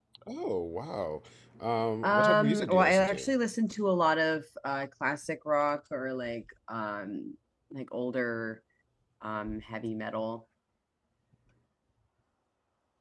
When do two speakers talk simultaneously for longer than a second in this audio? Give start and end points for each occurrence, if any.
2.0-3.3

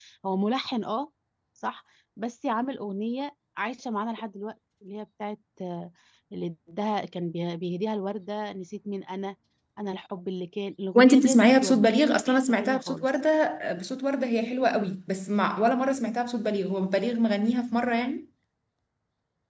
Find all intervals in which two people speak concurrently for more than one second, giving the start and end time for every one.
10.9-13.1

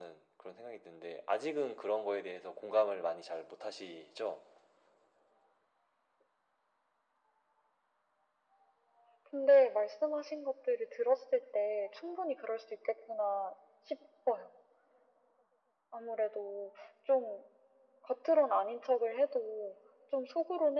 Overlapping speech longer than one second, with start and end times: none

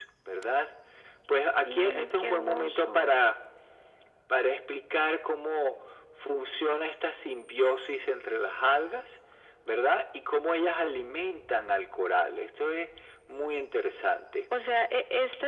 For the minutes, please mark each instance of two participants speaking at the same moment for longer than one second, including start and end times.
1.6-3.1

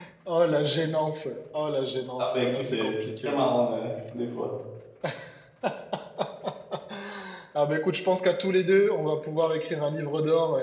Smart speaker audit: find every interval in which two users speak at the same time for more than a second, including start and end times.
2.2-3.5

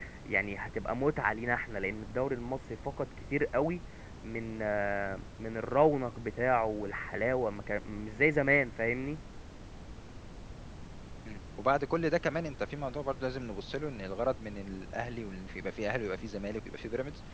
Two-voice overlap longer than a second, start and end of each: none

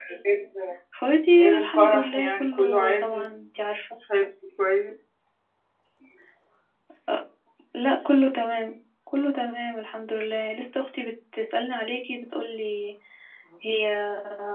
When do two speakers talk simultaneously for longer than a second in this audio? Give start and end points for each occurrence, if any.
1.4-3.2

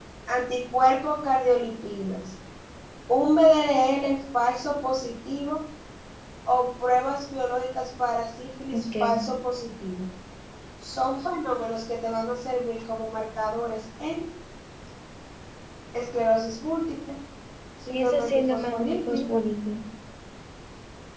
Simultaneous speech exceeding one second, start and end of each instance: 17.9-19.3

